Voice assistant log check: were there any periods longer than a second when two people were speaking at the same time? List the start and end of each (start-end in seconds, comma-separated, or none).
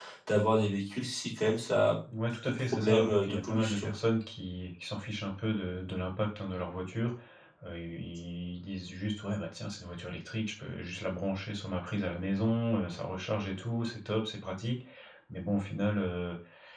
2.3-3.9